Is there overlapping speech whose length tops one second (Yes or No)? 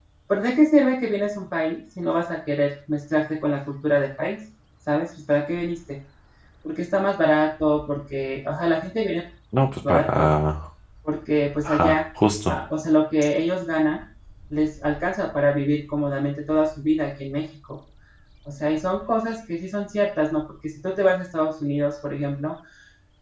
No